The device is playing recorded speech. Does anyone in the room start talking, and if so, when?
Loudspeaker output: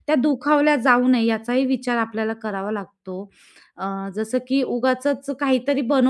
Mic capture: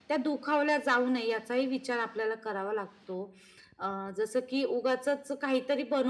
none

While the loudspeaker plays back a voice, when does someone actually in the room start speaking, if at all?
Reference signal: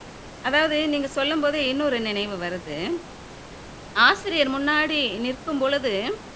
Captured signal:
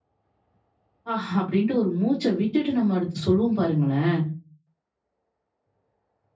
1.1 s

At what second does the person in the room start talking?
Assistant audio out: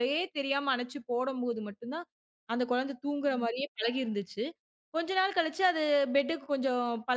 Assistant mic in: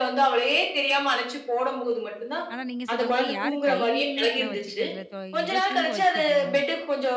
2.5 s

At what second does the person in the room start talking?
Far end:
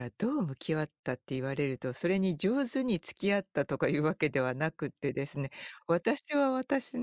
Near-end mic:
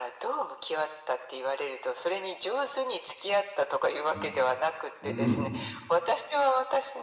4.1 s

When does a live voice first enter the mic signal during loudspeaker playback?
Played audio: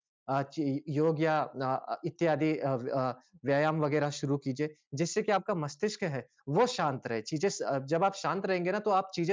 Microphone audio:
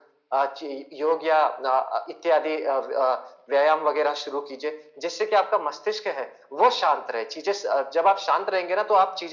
none

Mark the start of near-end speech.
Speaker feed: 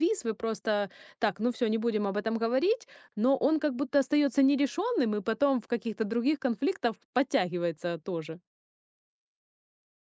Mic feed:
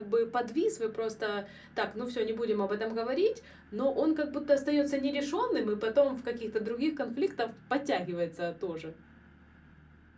none

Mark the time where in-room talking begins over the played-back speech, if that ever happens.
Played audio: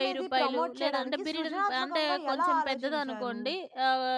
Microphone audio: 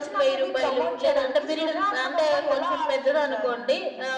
none

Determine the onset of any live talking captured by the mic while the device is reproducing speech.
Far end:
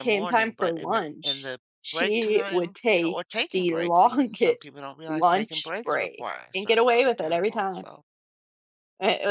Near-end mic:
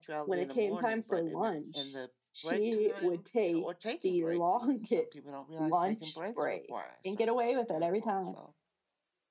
none

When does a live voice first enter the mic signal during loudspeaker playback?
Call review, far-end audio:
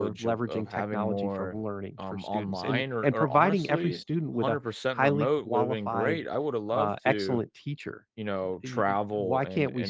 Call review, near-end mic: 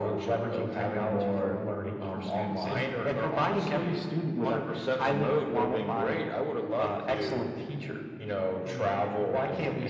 none

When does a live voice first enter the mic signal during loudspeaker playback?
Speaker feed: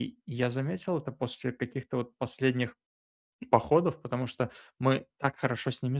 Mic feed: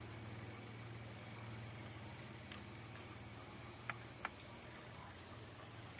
none

